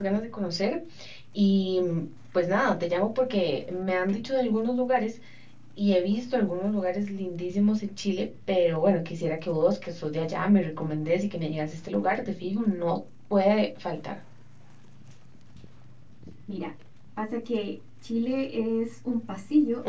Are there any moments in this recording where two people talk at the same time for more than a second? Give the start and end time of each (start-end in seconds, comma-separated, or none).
none